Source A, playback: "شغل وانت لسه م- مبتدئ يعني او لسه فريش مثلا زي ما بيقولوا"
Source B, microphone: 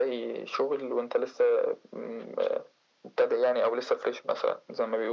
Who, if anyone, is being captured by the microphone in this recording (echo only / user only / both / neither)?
echo only